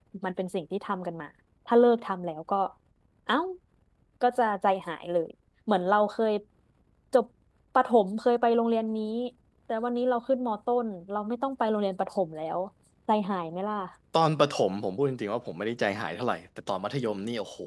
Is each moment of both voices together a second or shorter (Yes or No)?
Yes